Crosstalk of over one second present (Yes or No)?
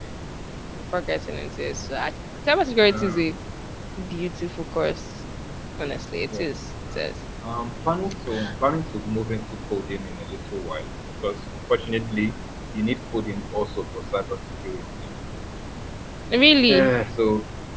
No